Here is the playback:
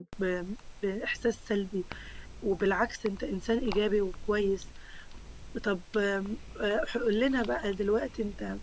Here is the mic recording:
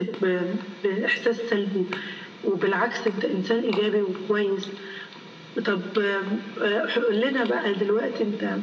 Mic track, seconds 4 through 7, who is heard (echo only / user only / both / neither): echo only